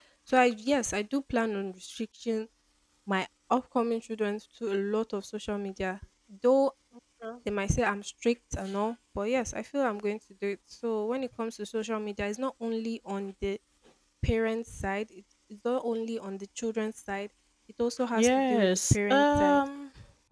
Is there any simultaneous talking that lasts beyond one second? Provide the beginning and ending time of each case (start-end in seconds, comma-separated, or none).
18.1-19.6